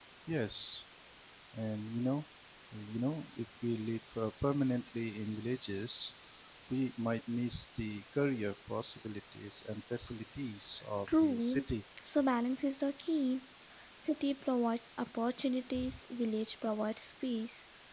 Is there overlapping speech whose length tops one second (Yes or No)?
No